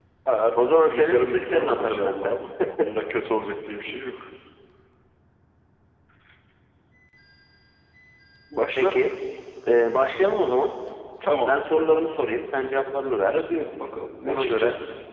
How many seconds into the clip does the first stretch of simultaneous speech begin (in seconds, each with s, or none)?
0.6 s